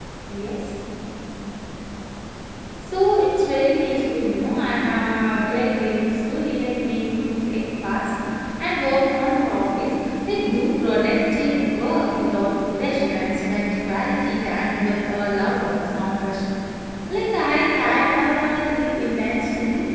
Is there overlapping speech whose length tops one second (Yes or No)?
No